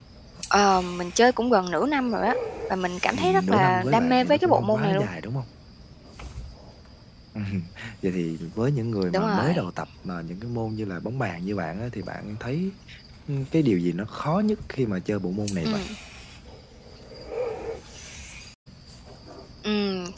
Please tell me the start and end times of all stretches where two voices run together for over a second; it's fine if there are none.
3.1-5.1

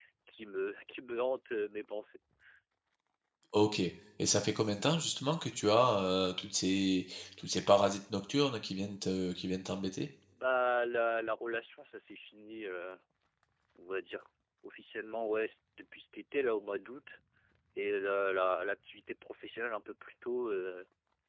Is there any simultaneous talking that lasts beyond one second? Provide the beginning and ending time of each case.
none

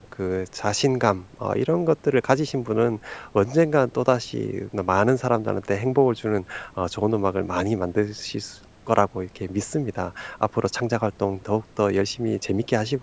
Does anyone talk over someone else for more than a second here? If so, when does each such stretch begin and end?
none

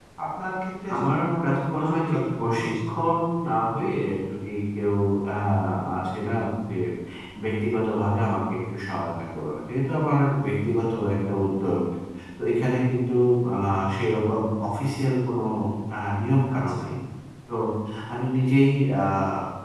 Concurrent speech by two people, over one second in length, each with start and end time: 0.9-2.9

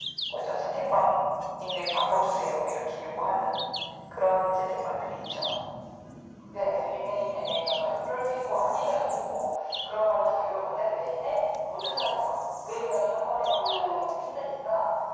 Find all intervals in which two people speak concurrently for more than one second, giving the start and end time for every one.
none

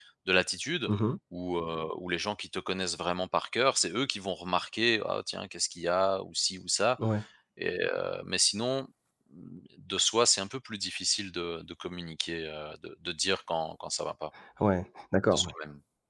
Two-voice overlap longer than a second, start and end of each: none

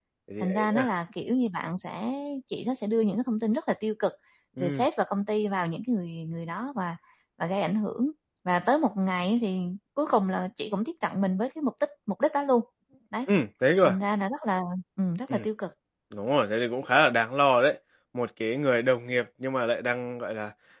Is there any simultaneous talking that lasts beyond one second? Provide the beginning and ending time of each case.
none

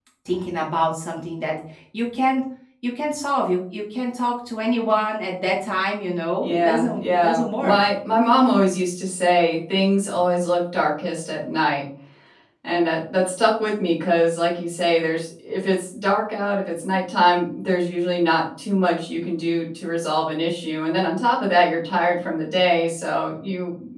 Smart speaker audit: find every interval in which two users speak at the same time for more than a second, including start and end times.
6.4-7.8

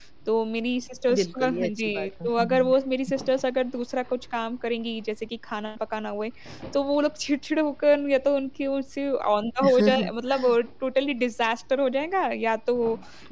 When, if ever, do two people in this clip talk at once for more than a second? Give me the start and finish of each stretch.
1.2-2.7

